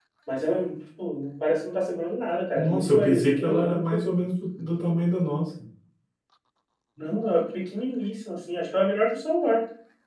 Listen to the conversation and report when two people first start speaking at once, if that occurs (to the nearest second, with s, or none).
3 s